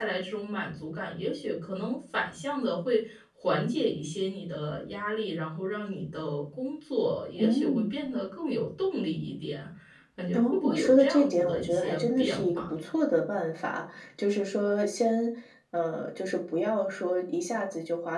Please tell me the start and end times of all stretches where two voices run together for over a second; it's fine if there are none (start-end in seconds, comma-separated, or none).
10.3-12.9